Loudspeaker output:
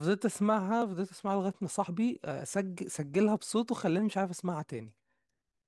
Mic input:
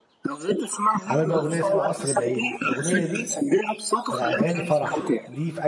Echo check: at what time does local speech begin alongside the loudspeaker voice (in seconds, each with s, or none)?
1.1 s